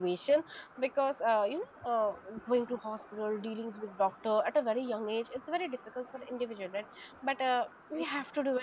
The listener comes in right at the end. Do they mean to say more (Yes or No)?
No